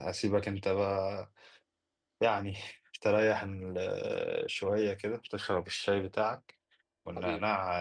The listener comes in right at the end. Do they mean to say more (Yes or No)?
No